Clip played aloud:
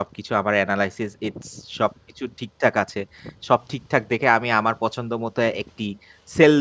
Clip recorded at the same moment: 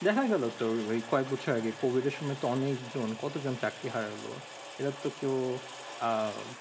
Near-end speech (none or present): present